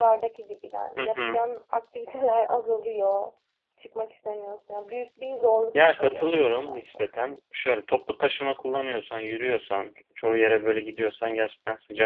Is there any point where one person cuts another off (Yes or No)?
Yes